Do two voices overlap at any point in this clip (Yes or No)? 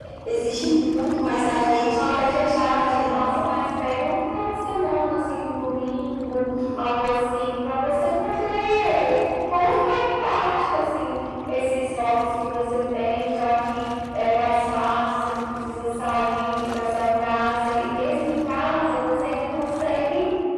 Yes